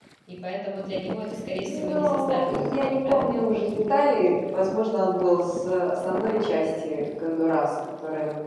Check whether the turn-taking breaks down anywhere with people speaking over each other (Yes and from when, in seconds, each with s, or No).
Yes, from 1.6 s